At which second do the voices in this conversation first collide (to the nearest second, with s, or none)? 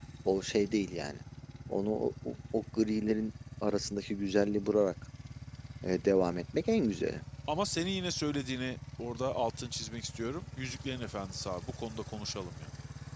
none